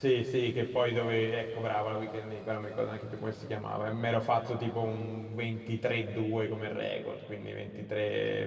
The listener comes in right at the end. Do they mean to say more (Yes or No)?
No